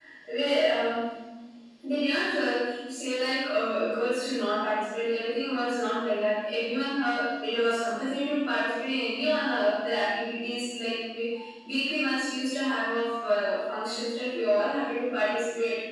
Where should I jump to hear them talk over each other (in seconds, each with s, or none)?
none